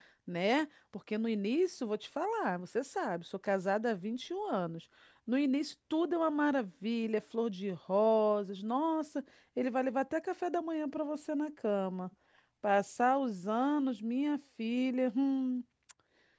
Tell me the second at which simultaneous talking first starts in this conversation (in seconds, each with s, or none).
none